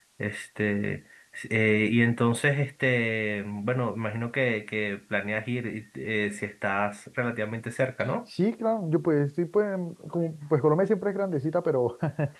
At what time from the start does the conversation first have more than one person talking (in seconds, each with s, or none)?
none